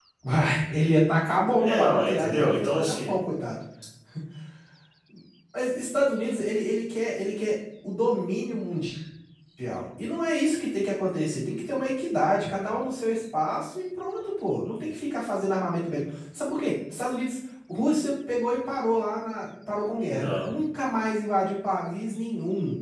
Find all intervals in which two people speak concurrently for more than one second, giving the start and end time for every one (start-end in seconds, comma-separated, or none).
1.6-3.2